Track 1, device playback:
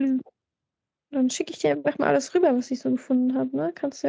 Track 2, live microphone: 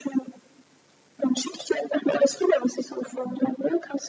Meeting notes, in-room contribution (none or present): none